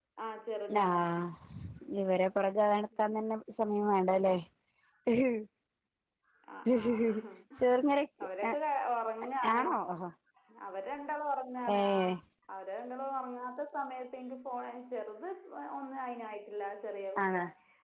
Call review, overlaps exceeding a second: none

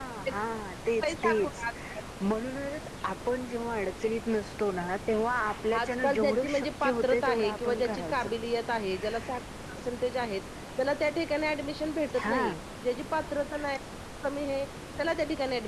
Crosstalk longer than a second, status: present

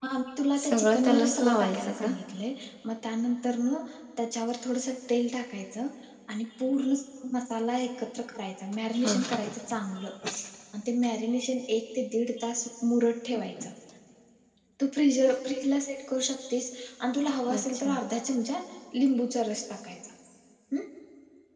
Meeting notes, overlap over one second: present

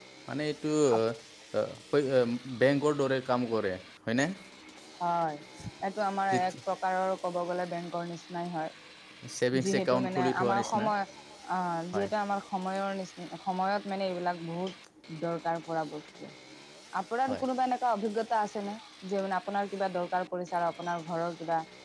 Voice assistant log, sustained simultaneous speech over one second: present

